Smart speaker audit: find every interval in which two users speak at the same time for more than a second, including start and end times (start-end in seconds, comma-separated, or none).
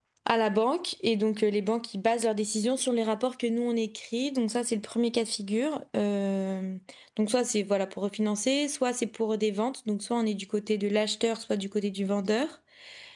none